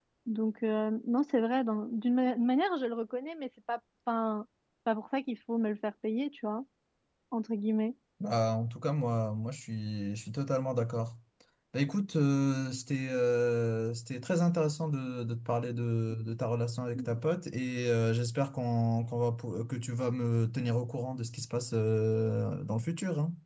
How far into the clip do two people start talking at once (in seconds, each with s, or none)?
none